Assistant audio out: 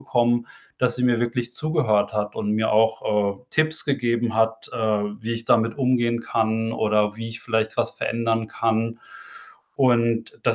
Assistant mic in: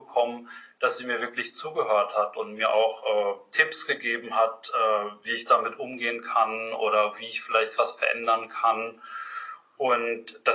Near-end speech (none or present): none